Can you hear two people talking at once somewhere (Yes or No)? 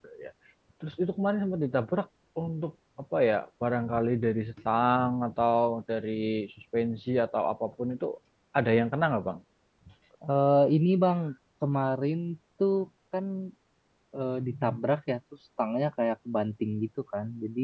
No